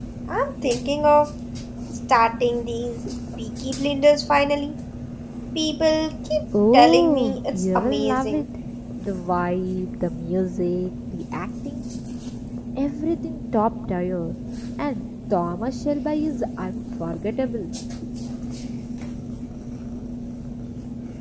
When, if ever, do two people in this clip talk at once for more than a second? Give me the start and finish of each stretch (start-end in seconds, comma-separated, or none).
6.7-8.4